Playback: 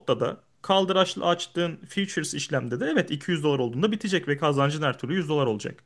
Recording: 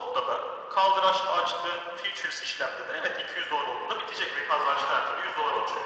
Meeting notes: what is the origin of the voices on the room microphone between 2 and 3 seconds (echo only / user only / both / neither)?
echo only